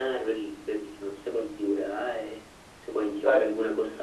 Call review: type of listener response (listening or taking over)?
listening